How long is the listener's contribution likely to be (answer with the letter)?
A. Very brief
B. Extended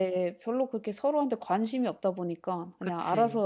A